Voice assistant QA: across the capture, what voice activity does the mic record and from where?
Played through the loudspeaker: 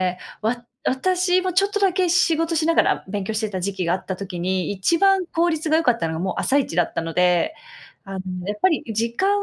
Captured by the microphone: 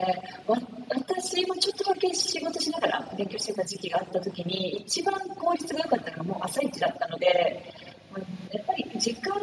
echo only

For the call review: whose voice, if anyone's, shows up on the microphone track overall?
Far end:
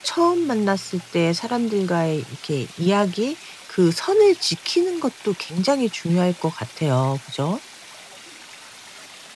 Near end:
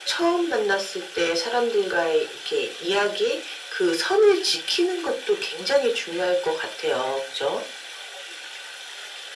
echo only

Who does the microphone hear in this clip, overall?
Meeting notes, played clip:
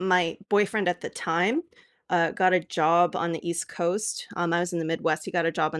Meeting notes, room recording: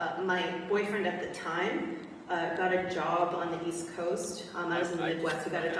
both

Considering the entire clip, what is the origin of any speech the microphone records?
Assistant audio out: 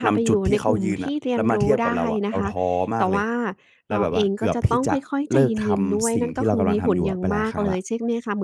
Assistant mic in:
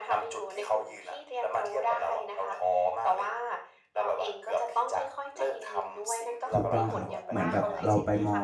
both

